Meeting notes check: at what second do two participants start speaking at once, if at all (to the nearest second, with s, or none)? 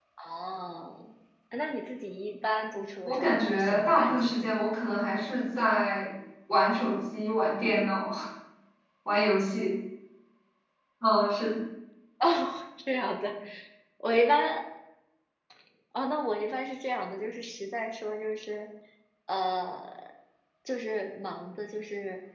3 s